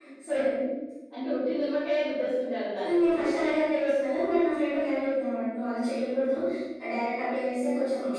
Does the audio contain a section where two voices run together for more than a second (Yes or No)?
No